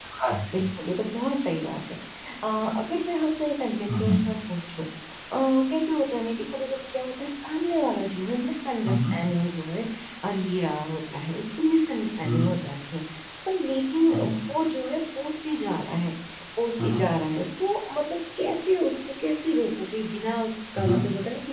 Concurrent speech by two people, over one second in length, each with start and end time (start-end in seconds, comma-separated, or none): none